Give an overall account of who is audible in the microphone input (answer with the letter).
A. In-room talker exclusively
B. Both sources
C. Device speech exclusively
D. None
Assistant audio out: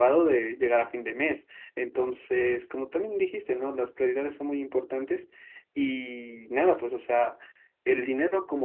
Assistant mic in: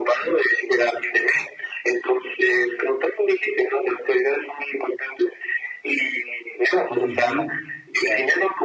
B